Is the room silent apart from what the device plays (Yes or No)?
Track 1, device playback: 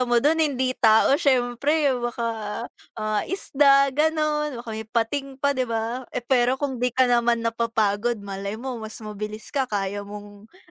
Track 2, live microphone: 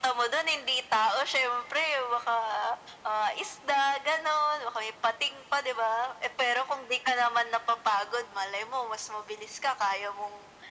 Yes